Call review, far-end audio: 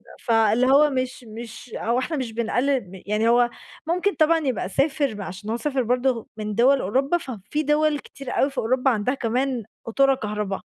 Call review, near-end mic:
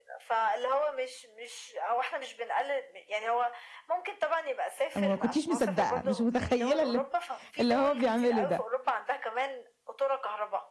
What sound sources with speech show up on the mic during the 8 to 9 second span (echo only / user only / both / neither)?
both